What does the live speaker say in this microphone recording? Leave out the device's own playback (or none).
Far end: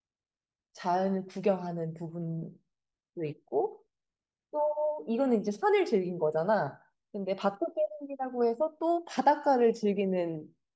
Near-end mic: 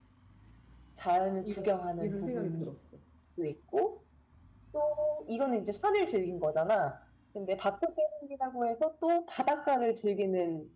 이런, 이런 생각이 들었어.